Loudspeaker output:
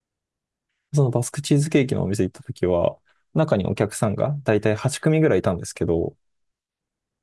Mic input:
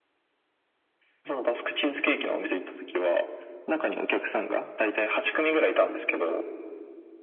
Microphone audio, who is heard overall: echo only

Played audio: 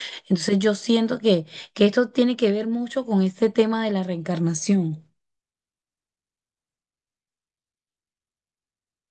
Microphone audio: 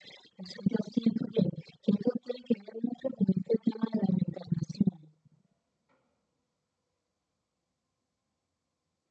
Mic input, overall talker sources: echo only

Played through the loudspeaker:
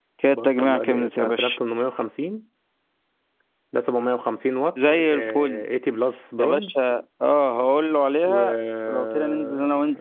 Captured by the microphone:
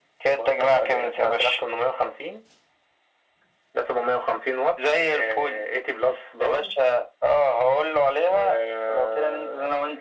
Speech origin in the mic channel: echo only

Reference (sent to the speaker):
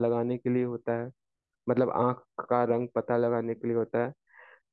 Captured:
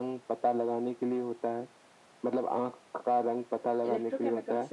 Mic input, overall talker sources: both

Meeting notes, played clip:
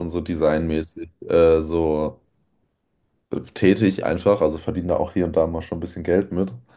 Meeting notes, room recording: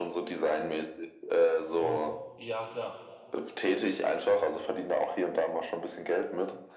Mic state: both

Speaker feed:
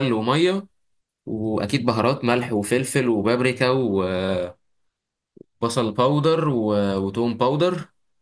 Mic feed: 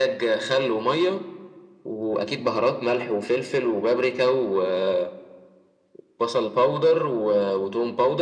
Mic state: echo only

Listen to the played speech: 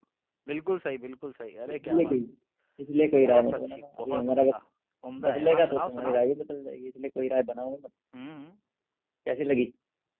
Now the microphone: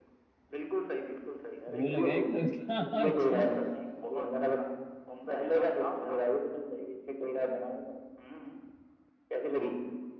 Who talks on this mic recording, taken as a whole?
both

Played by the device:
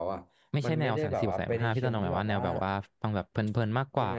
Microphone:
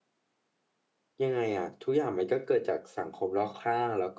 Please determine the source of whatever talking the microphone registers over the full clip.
user only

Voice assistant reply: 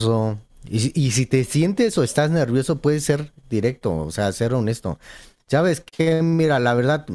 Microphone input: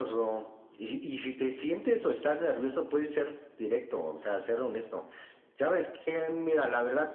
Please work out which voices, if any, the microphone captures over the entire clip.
echo only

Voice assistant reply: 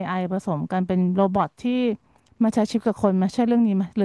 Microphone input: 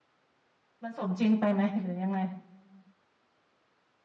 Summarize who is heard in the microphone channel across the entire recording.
user only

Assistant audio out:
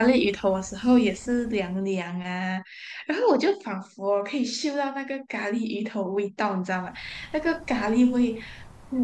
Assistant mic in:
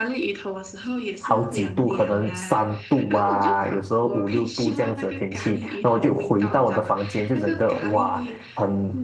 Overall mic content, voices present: both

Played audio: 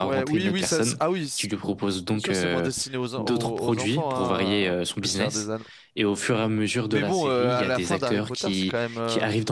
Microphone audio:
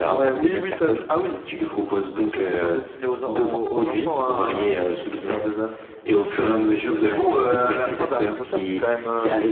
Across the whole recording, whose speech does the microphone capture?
echo only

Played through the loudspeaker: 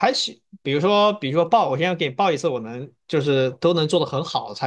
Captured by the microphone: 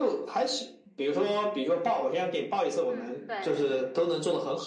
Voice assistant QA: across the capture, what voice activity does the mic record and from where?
both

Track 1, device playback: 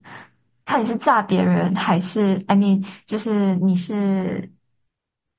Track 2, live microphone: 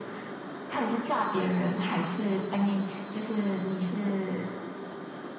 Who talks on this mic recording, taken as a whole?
echo only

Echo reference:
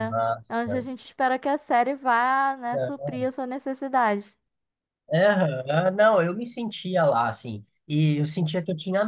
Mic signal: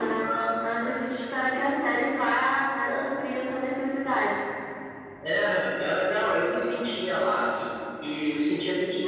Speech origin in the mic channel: echo only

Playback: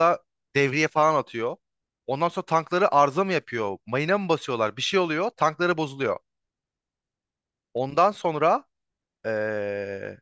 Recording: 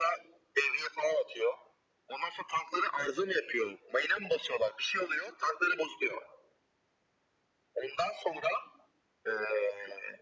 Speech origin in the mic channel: echo only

